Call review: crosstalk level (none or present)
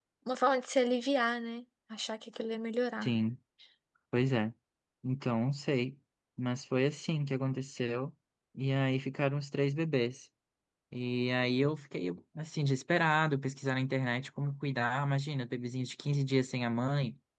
none